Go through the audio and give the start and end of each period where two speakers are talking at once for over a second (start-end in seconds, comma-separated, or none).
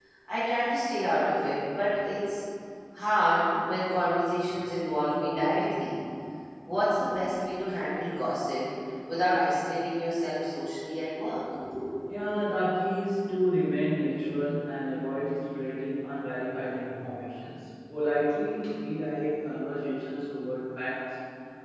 none